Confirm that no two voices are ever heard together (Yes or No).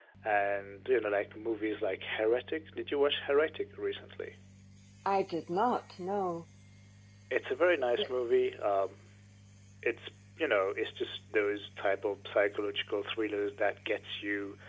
Yes